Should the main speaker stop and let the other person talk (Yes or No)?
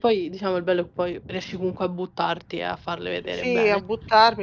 Yes